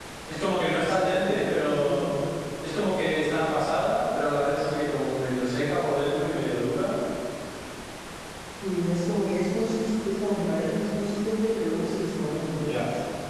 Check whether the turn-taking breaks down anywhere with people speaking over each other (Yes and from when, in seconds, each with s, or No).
Yes, from 0.8 s